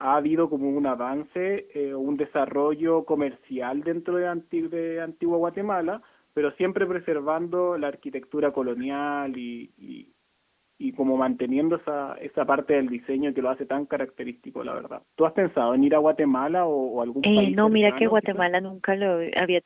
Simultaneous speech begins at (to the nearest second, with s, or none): 17 s